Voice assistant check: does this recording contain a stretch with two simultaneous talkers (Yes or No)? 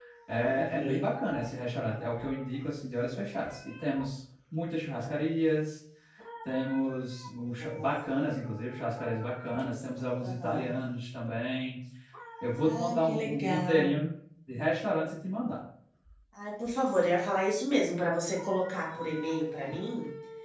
Yes